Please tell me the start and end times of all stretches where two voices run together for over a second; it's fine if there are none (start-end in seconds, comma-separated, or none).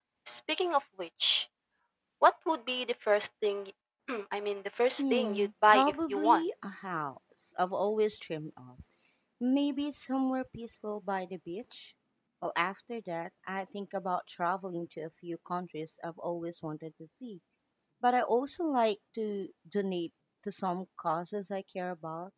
5.0-6.4